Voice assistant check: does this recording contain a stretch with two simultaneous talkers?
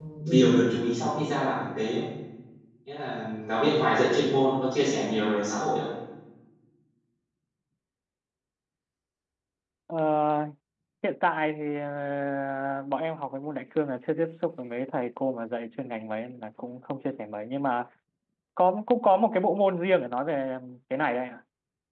No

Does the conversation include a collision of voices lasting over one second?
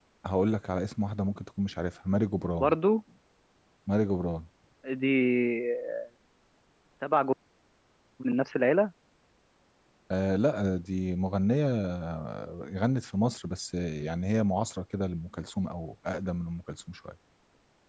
No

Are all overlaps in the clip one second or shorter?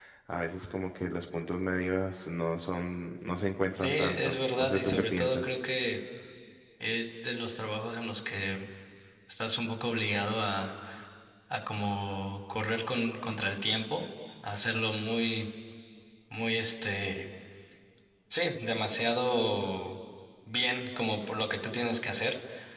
No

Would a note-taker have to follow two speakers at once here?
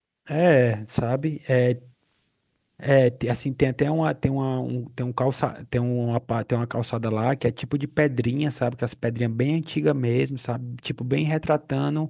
No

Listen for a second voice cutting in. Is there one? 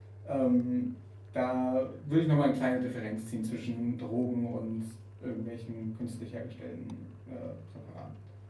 No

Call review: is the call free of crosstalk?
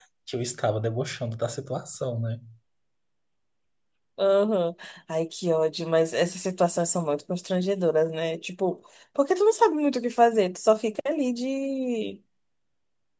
Yes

